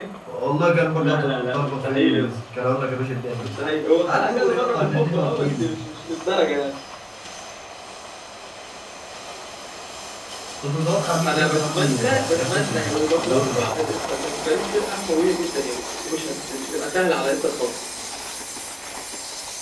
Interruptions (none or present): present